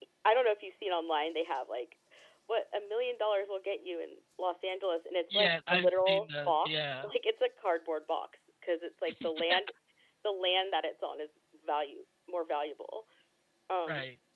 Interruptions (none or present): present